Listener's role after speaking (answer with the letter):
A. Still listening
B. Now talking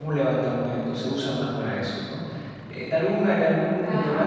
A